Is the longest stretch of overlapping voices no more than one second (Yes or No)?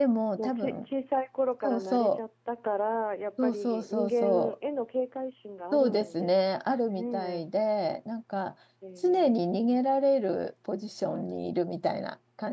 No